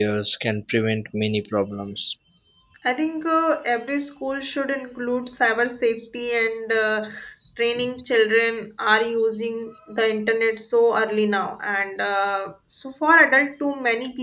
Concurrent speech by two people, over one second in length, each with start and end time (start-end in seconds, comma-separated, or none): none